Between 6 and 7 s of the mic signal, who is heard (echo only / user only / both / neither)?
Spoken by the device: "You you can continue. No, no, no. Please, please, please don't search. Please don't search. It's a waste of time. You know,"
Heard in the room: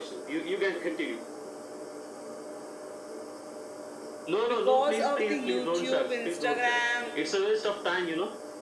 both